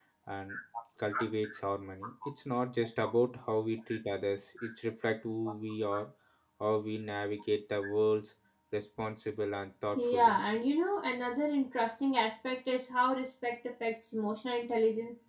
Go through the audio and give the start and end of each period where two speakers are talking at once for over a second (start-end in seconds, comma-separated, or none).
none